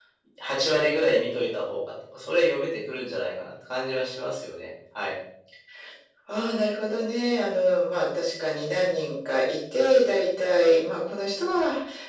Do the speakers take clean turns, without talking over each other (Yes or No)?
Yes